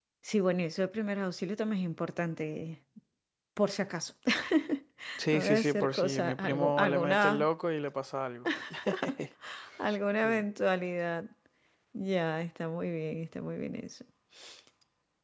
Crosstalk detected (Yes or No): Yes